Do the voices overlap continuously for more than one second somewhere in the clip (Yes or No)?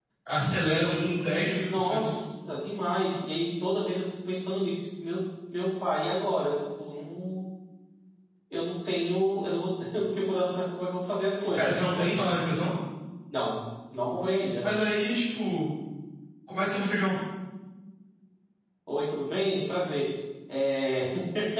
Yes